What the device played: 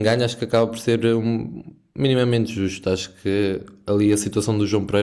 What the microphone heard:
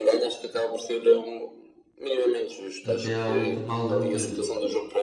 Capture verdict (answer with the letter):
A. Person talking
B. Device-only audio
A